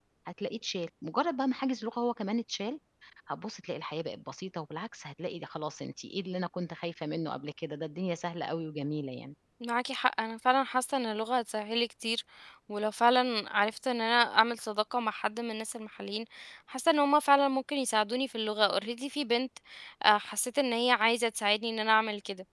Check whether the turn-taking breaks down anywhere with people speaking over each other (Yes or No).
No